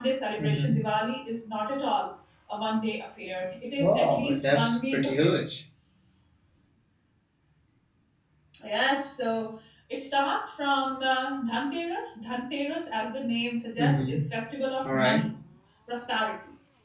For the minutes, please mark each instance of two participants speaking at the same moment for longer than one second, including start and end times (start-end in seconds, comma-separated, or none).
3.8-5.3